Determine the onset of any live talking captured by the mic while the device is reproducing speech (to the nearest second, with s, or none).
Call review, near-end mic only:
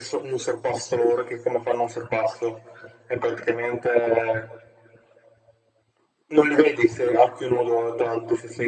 none